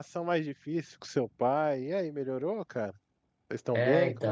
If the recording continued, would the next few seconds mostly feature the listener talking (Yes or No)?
Yes